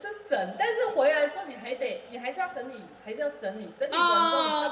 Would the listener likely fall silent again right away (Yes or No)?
No